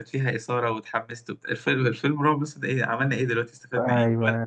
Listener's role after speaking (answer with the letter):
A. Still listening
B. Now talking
B